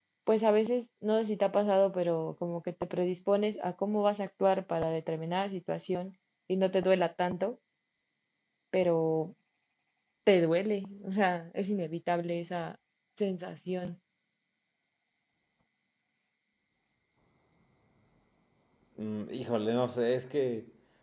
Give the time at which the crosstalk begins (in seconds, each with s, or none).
none